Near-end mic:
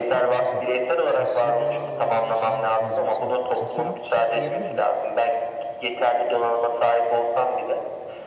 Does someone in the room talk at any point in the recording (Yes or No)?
Yes